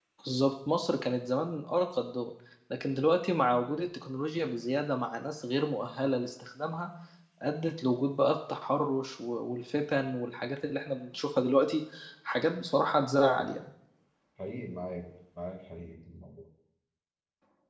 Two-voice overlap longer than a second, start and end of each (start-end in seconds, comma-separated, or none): none